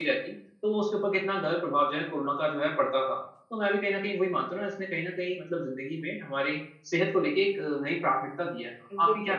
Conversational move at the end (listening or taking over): taking over